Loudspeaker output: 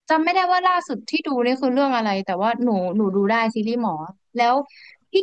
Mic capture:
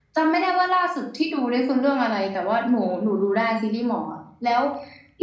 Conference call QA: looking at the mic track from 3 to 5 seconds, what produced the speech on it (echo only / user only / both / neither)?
echo only